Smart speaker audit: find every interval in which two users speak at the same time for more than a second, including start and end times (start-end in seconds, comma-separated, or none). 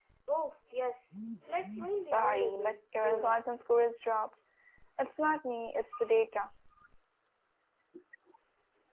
2.1-3.4